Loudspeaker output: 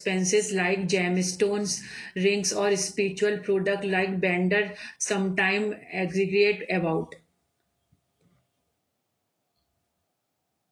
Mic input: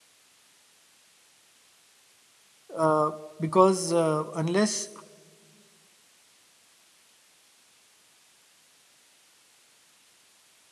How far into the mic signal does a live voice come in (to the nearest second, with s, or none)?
3 s